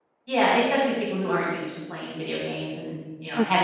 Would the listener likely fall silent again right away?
No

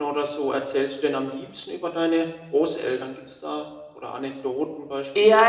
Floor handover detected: Yes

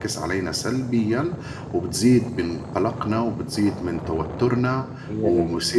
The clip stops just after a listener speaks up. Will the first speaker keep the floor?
Yes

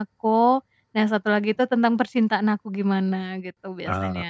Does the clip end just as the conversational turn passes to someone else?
Yes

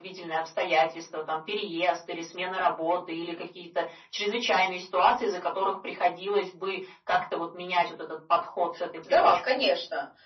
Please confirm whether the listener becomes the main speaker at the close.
Yes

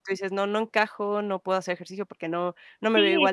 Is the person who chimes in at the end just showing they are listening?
No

